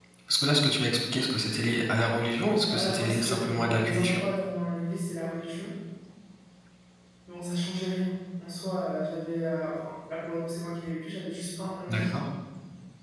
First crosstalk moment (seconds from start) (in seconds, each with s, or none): 2.7 s